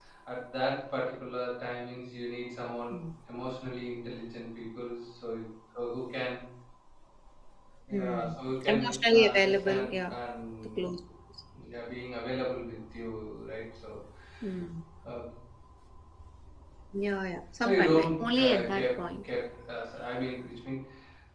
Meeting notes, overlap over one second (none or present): present